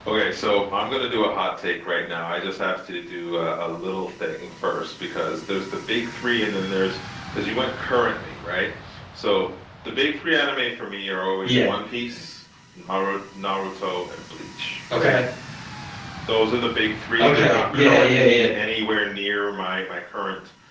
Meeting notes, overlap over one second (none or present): present